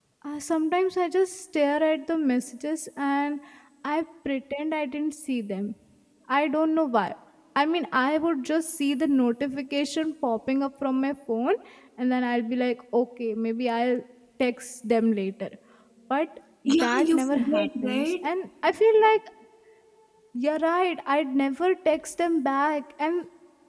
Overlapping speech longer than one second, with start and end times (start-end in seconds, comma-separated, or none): 16.8-18.3